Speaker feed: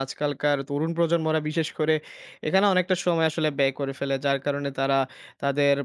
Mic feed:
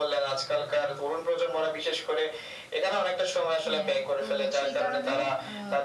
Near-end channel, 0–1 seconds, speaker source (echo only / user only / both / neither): echo only